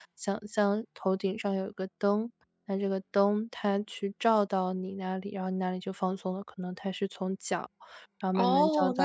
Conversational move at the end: taking over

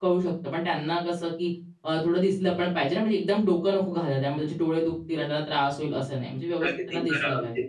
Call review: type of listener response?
taking over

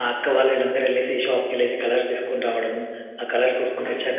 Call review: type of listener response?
taking over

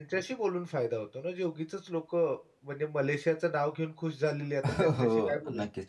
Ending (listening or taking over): taking over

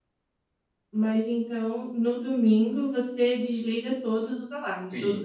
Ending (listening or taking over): taking over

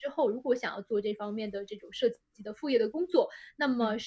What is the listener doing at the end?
listening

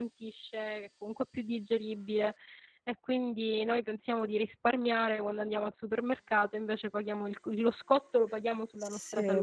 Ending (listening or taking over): taking over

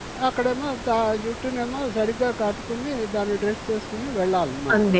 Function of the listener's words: taking over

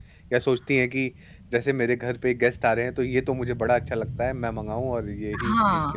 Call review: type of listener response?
taking over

